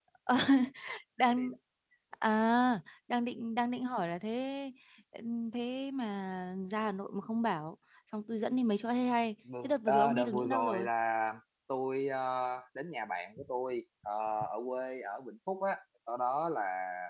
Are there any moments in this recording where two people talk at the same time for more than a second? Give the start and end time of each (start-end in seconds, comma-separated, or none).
9.6-10.9